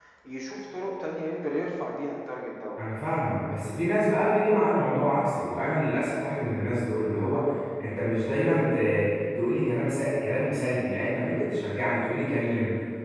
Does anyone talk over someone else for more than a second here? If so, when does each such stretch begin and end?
none

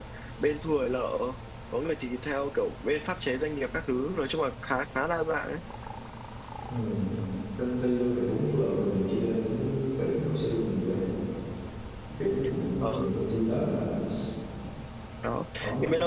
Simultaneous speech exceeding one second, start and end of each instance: none

